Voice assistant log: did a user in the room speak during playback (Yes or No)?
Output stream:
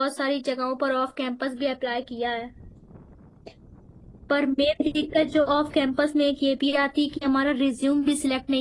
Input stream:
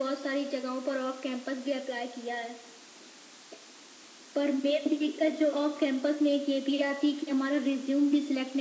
No